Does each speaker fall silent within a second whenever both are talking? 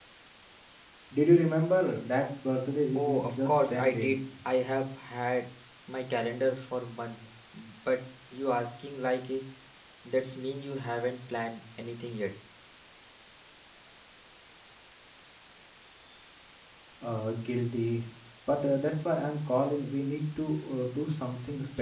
No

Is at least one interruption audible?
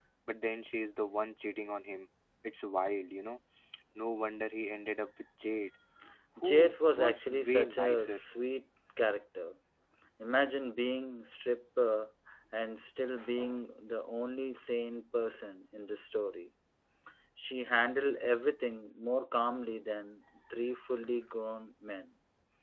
Yes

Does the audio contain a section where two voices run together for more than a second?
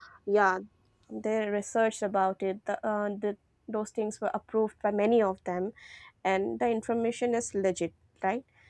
No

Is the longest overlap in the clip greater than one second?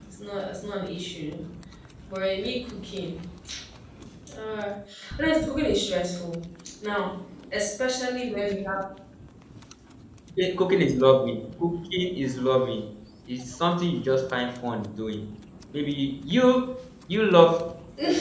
No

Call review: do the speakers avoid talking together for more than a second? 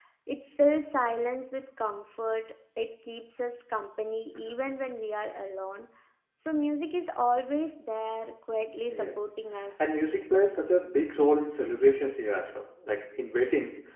Yes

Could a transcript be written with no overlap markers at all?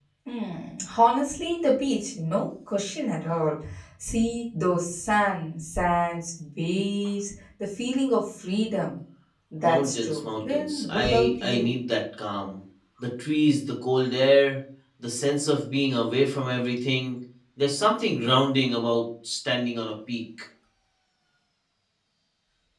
No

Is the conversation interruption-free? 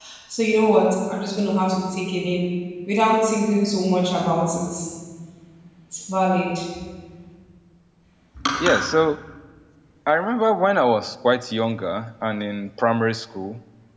Yes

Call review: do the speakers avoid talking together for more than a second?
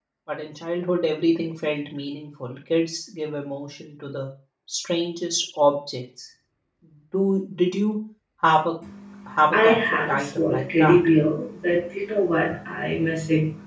No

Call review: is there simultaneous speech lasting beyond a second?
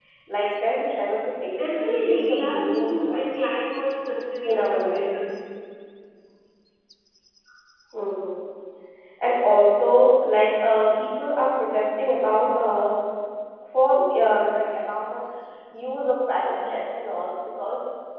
Yes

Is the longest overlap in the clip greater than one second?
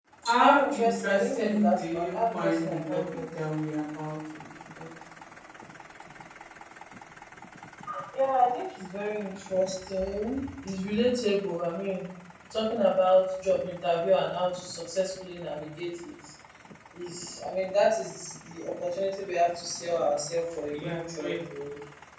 Yes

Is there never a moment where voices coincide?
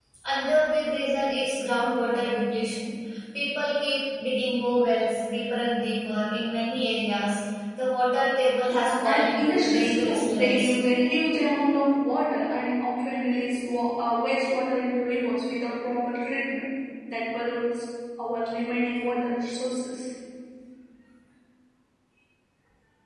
No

